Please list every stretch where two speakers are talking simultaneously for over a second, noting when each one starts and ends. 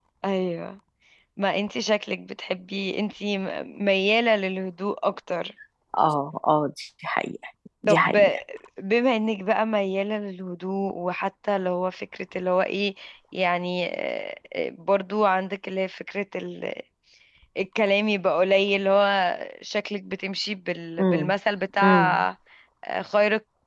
none

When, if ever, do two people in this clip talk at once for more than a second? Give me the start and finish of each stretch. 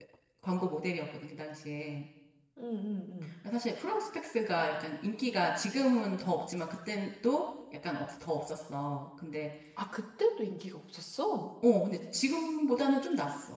none

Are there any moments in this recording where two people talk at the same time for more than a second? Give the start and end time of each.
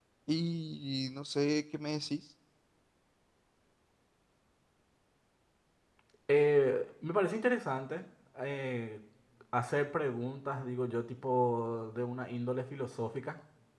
none

